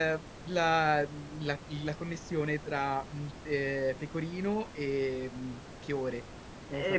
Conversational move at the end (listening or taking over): taking over